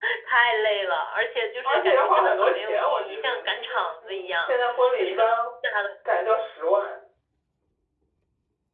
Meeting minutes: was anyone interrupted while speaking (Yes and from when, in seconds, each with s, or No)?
Yes, from 1.6 s